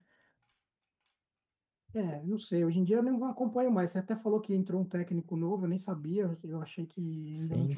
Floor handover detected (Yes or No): Yes